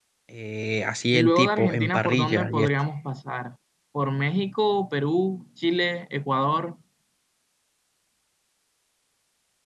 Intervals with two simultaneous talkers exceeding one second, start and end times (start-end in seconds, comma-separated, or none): 1.1-2.7